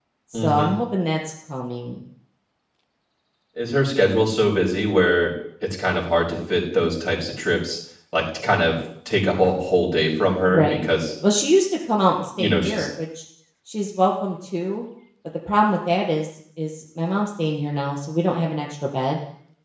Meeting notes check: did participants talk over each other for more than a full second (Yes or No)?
No